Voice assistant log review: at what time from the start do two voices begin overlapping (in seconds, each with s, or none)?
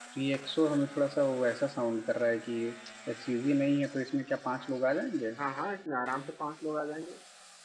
none